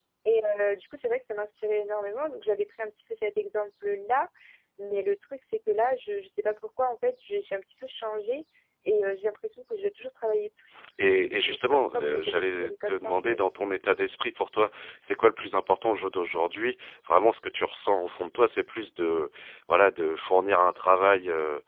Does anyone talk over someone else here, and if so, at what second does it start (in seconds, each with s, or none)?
11.0 s